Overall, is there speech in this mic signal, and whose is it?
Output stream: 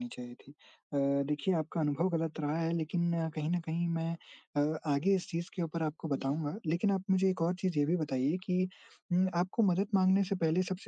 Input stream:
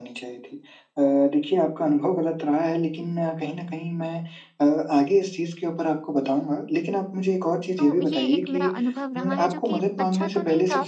both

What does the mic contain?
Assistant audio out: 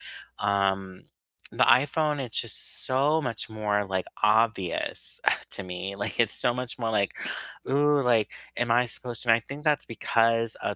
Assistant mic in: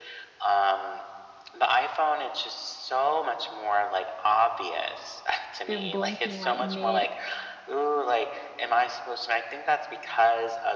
both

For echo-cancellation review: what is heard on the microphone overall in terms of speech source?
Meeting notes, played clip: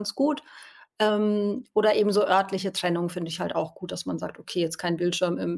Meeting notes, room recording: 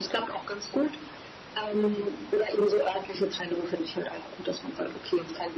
echo only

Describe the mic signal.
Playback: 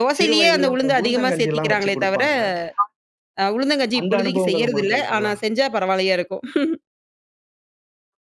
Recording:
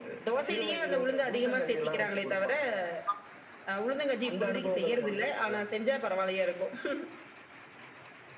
echo only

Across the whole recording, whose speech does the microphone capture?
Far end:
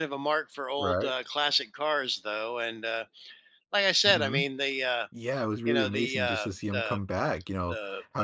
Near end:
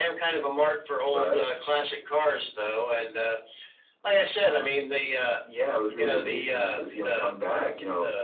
echo only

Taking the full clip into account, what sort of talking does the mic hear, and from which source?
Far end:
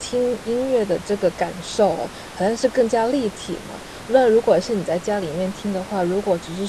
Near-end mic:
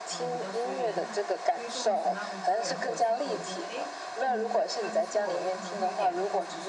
both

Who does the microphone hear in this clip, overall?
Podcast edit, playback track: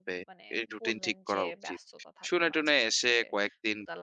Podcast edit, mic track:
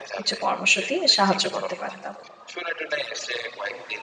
both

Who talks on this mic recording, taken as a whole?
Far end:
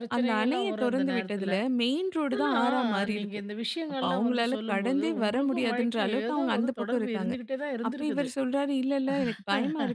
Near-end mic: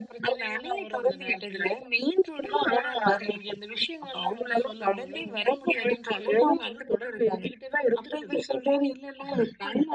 echo only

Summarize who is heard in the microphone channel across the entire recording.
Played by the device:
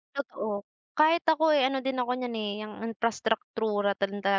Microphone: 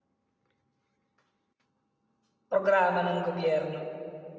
user only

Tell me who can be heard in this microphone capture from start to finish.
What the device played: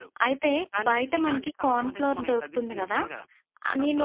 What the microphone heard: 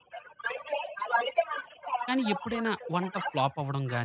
both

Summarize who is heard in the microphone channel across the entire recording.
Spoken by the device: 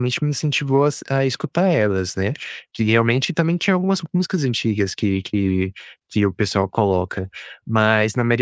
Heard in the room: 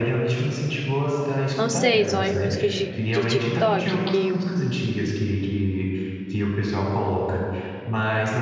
both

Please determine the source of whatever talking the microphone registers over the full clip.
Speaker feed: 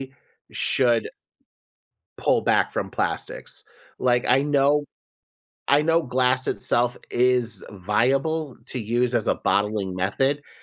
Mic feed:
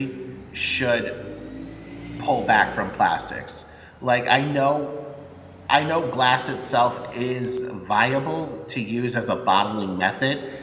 echo only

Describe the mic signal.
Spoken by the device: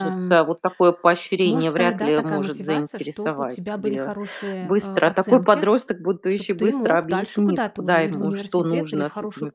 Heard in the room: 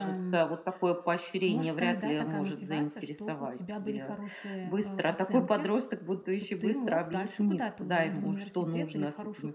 echo only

